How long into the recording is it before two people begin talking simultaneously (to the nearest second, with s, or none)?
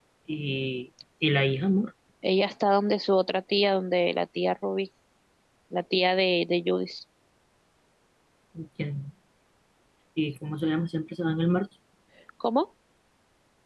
none